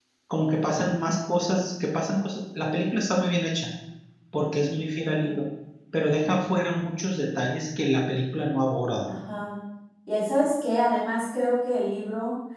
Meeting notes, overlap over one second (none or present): none